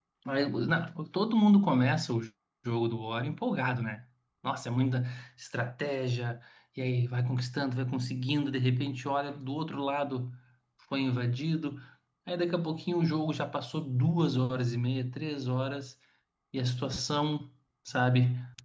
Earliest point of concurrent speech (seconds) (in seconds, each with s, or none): none